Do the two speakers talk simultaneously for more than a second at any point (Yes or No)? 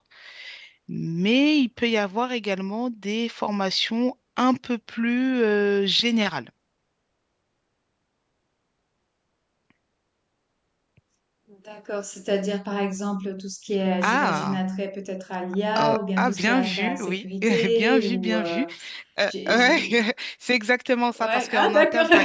Yes